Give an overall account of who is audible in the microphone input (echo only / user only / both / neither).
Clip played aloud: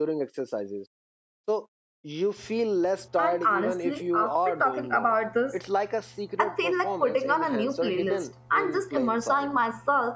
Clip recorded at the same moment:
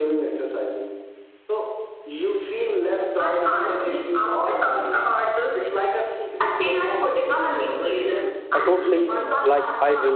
both